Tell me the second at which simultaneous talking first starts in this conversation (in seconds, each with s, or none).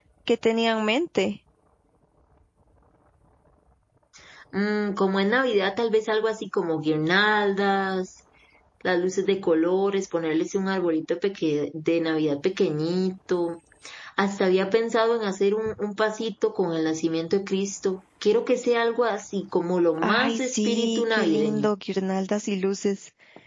20.0 s